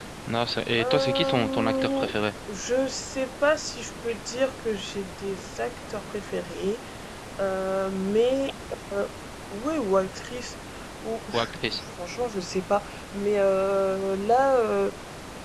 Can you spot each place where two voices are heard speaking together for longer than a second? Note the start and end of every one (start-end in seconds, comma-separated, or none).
0.8-2.1